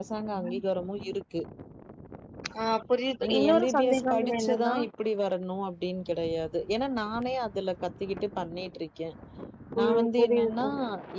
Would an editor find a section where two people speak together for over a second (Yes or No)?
Yes